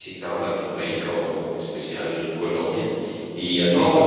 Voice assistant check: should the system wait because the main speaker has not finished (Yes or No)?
Yes